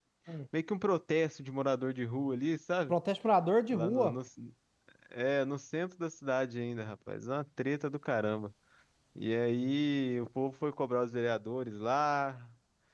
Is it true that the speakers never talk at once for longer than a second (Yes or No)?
Yes